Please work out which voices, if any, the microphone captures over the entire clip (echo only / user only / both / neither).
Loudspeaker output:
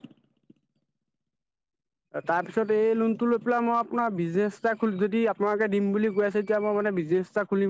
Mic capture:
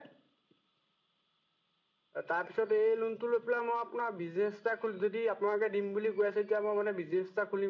echo only